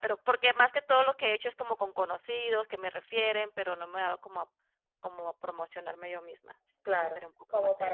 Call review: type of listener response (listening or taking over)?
taking over